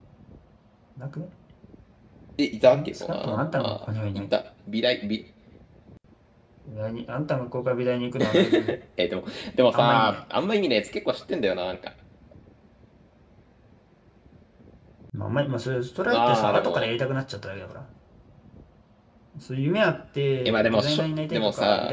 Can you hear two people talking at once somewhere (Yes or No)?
Yes